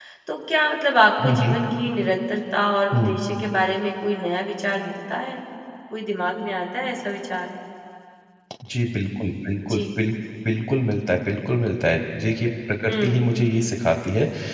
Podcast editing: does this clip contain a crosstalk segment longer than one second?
No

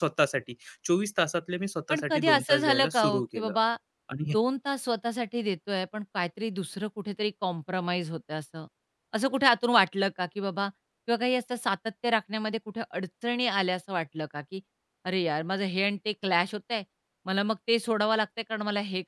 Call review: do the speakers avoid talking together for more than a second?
No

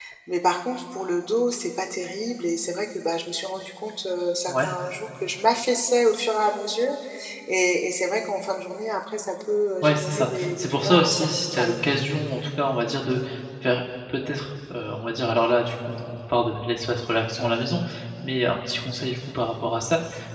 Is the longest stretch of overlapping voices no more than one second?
No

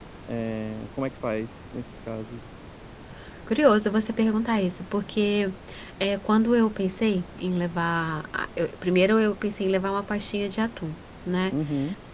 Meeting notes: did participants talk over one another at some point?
No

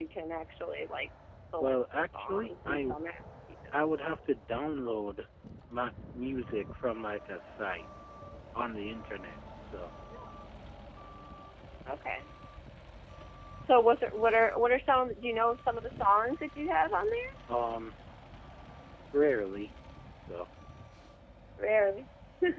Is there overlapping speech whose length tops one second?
Yes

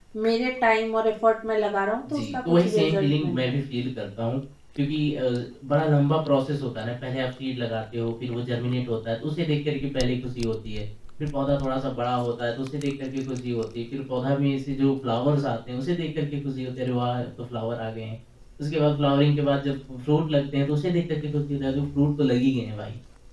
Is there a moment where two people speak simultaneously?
Yes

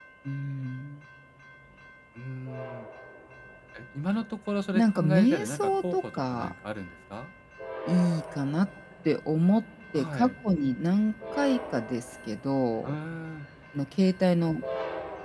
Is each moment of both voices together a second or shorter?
No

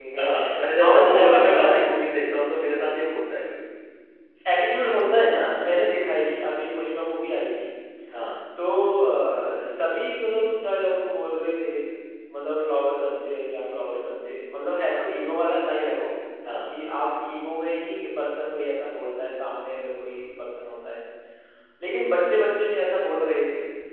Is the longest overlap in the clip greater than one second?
Yes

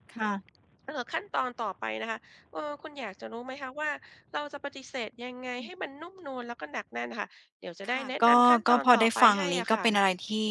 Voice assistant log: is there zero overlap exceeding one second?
No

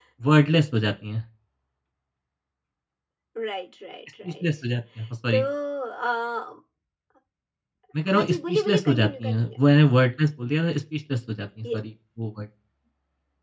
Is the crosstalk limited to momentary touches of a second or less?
No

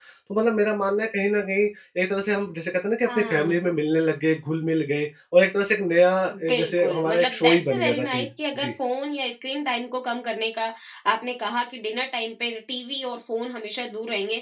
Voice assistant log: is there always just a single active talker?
No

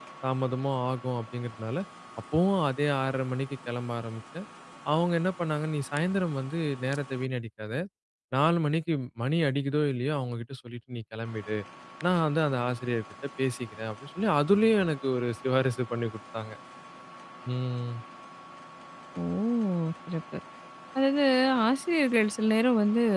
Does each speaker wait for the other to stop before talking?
Yes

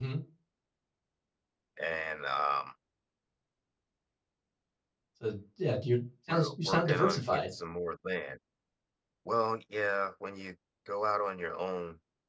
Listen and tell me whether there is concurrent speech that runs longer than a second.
Yes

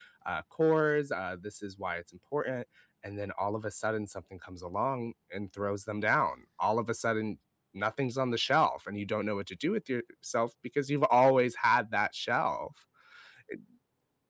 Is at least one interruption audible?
No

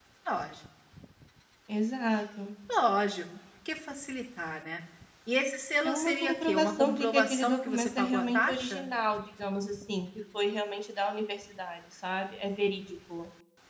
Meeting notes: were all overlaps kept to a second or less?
No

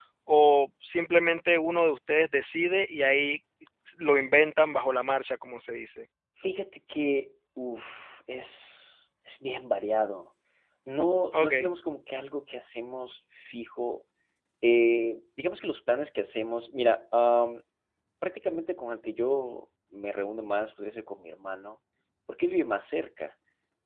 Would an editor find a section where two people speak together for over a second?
No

